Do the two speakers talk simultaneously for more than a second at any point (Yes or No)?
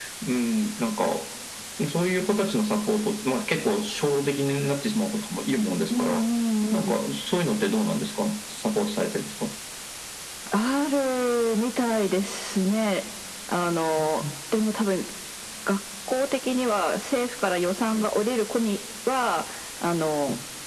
No